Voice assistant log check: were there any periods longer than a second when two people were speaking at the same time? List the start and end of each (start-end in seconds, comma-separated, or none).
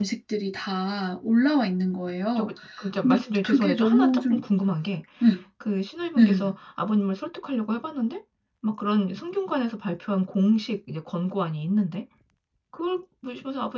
3.0-4.4